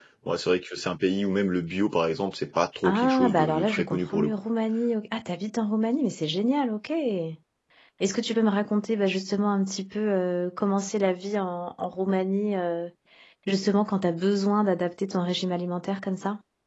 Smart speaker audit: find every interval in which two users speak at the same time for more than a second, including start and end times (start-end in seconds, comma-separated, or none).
2.8-4.3